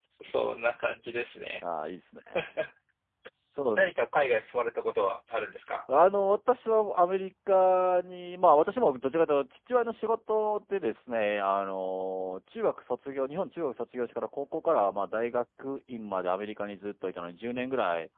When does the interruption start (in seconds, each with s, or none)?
none